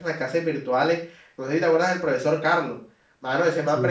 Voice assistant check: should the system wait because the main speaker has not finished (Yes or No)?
Yes